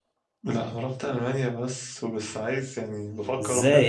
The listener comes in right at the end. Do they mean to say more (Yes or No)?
Yes